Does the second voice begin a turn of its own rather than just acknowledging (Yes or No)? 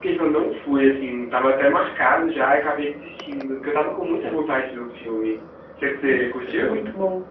Yes